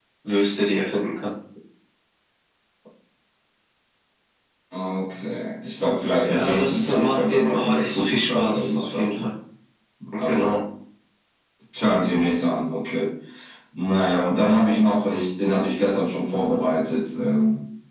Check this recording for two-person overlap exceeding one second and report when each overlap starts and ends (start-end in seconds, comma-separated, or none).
6.2-9.3